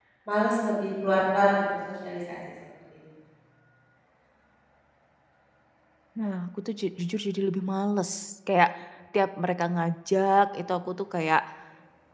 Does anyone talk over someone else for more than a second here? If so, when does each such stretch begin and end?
none

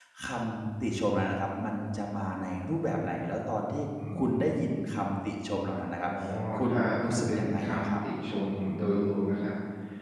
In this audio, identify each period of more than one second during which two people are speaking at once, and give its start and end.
6.6-7.9

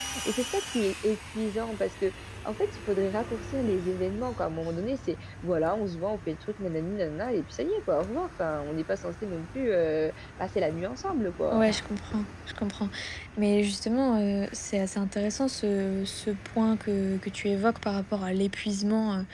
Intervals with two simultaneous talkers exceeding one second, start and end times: none

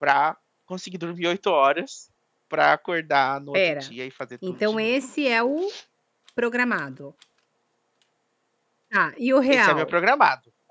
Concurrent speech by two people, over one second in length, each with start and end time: none

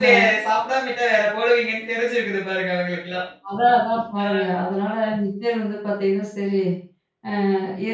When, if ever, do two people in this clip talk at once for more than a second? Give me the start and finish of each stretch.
none

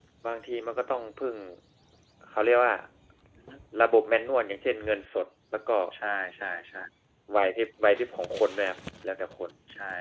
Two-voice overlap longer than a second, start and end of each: none

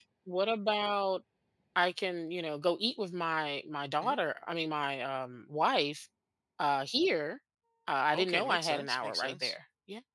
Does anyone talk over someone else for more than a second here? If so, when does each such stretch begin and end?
8.2-9.6

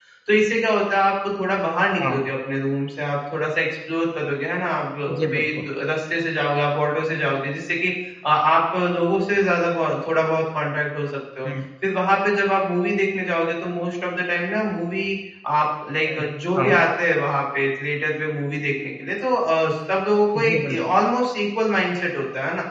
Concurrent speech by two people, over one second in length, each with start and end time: none

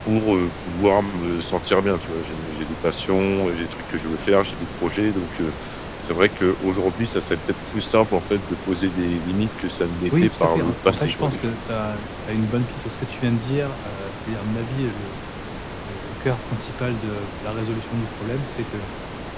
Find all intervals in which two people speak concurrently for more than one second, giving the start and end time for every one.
10.1-11.5

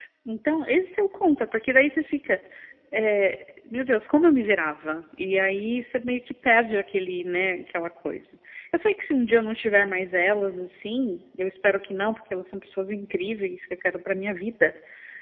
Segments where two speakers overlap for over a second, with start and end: none

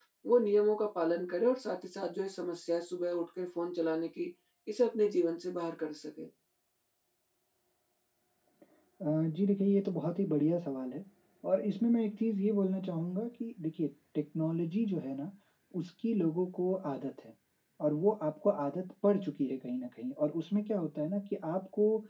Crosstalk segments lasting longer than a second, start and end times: none

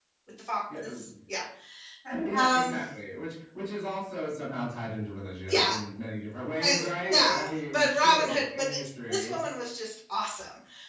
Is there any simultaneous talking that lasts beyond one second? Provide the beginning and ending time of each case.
6.6-9.4

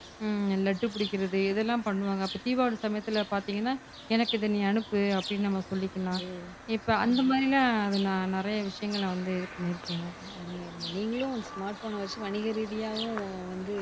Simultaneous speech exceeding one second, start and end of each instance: none

